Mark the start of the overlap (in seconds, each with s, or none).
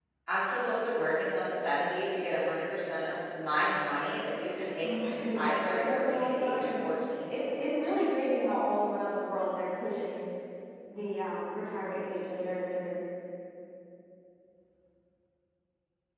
4.8 s